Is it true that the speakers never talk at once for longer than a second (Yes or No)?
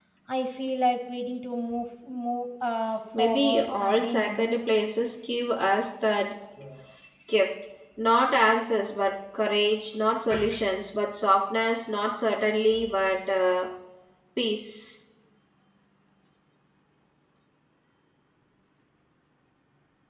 No